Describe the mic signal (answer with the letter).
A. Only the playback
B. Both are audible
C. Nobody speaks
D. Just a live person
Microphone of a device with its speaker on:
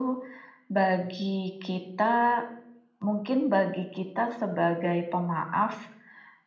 A